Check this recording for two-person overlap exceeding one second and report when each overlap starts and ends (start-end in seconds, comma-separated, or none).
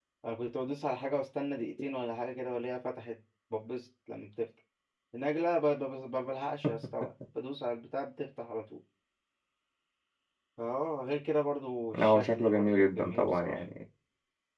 12.0-13.6